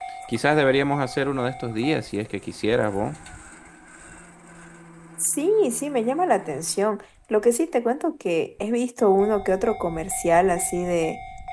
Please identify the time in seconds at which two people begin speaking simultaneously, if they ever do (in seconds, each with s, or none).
none